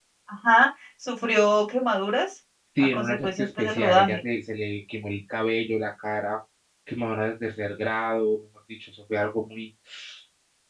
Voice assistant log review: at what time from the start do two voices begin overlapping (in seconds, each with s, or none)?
2.8 s